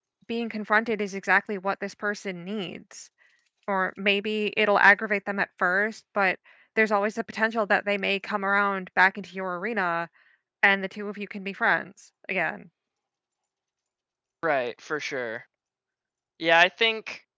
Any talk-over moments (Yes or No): No